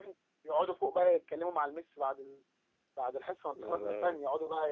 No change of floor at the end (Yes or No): Yes